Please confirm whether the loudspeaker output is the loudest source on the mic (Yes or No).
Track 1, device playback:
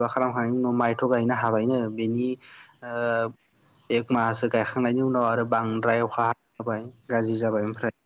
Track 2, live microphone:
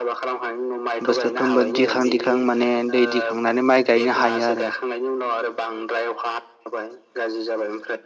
No